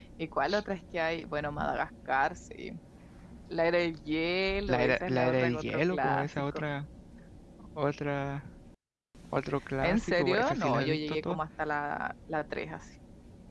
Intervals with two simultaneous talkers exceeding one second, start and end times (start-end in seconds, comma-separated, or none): 4.7-6.6, 9.8-11.4